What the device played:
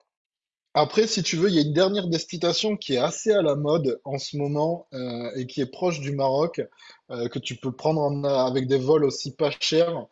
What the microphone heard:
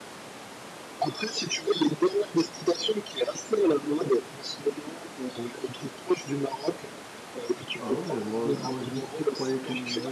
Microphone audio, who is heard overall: both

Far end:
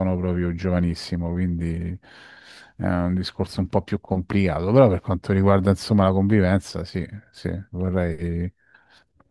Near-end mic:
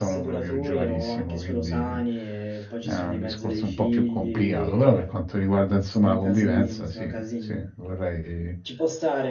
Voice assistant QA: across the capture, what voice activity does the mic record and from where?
both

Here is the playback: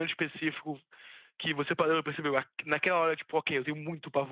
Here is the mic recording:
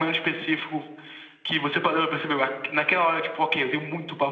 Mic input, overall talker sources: echo only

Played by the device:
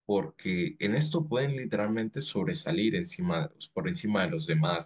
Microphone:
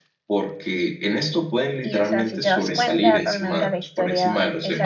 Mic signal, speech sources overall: both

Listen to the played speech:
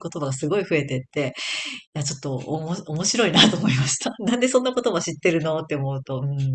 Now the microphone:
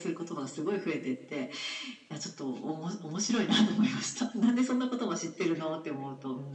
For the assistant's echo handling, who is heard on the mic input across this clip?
echo only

